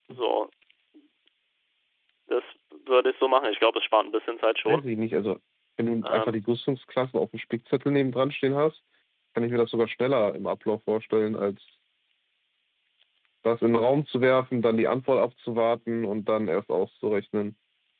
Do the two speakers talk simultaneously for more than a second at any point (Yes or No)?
No